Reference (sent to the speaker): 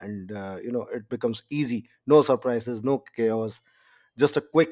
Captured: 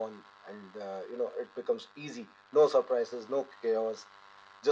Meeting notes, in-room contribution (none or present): none